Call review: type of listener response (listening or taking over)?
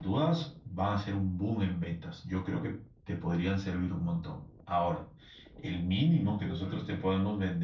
listening